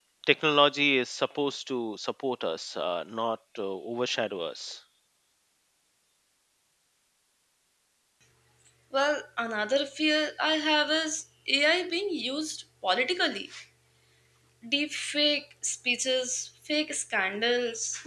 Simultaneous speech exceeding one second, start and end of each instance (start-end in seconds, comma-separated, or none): none